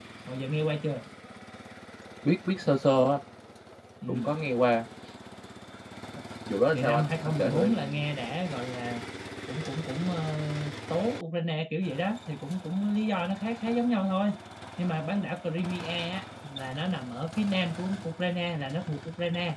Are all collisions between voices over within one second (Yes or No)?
No